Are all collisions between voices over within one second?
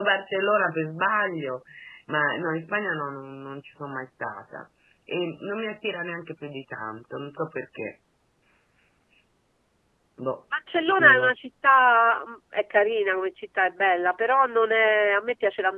Yes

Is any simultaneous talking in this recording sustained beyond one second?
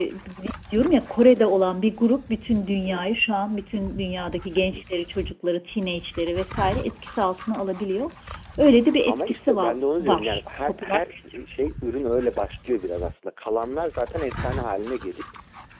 Yes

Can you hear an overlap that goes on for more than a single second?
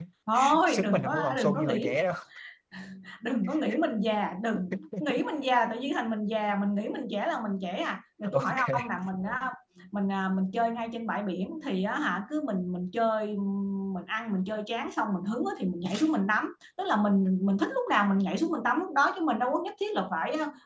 Yes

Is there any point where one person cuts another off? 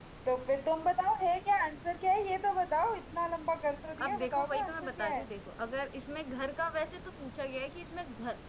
Yes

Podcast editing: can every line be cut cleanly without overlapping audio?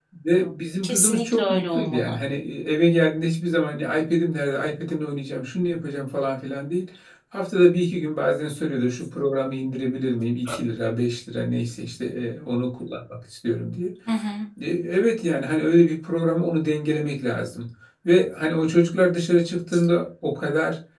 No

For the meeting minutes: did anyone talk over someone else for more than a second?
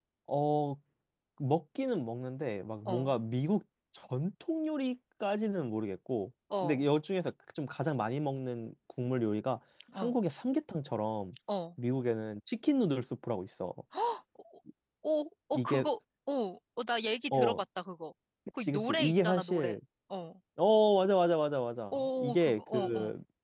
Yes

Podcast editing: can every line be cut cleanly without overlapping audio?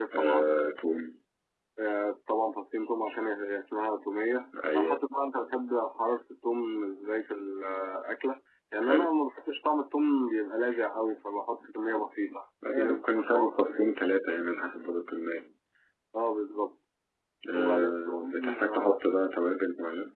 No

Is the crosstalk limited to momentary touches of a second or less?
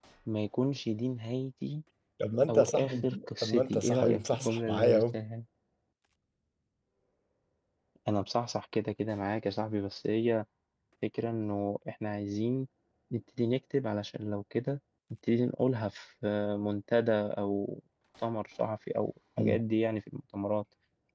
No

